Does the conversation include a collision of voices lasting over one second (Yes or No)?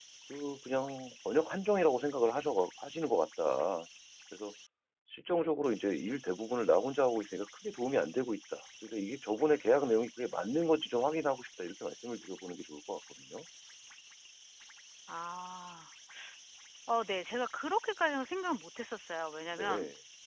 No